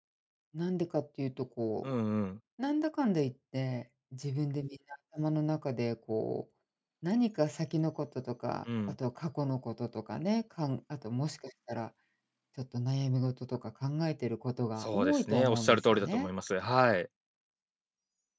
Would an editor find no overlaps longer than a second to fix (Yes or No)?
No